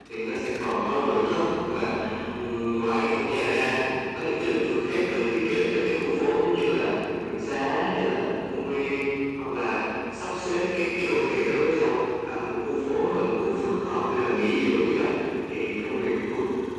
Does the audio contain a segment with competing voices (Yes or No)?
No